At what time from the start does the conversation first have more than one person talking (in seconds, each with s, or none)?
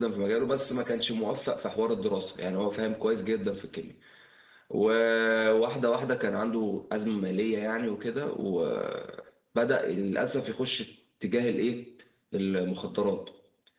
none